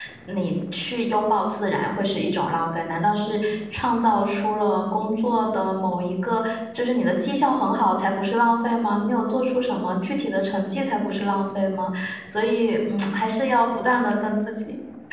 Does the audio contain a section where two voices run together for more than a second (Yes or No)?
No